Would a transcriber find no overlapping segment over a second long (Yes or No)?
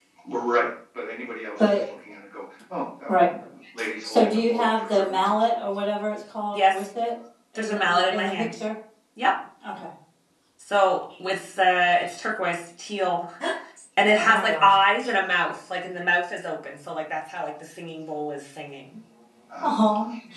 No